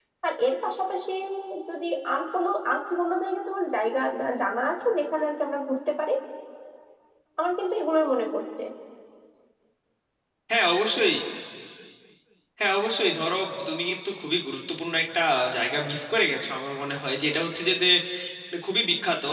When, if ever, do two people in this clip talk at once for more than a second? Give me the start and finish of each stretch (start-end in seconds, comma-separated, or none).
none